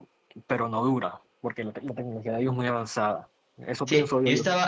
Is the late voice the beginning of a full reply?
Yes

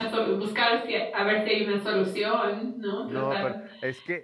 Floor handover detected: Yes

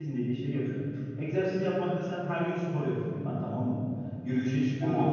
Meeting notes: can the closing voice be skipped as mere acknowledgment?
Yes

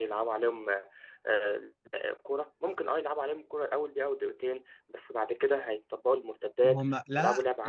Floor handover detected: Yes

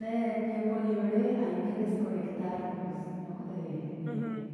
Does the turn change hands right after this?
Yes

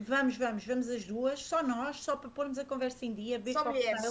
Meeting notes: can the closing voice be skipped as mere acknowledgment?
Yes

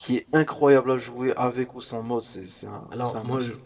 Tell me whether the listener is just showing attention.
No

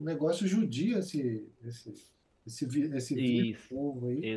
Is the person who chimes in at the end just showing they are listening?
No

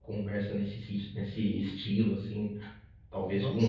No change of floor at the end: Yes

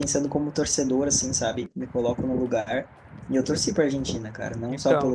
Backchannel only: Yes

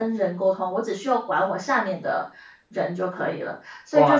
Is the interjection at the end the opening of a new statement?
Yes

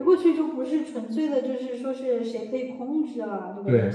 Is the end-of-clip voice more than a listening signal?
Yes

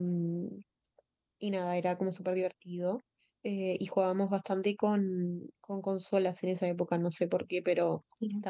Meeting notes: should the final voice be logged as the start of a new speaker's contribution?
No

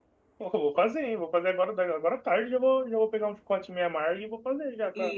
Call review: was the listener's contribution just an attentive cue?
No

